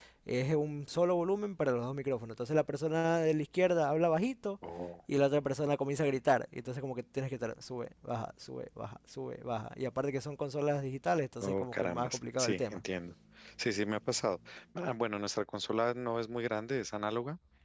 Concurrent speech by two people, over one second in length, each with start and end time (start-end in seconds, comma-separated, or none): 11.4-12.8